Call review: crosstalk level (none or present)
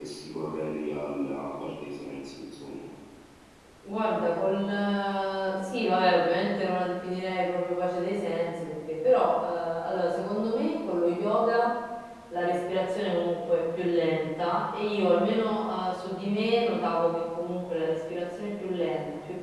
none